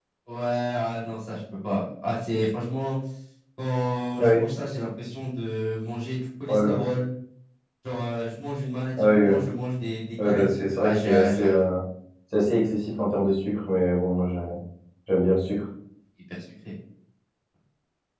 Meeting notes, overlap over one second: present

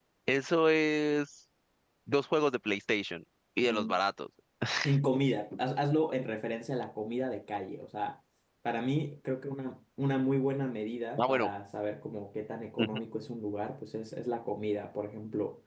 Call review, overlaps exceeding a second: none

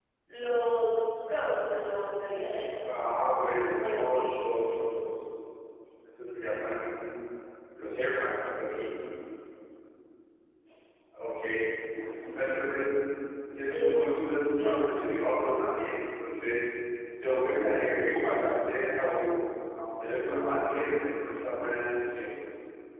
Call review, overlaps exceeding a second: present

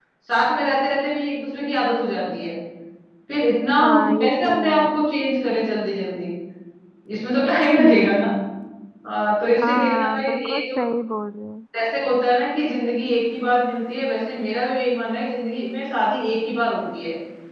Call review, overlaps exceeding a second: present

